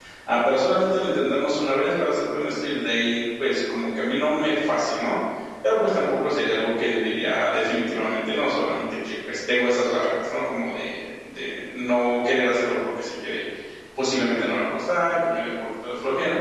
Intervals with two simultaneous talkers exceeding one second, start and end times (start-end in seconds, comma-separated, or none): none